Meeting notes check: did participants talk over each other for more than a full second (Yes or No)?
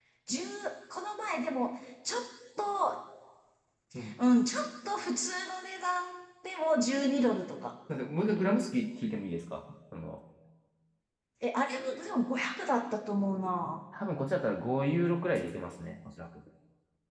No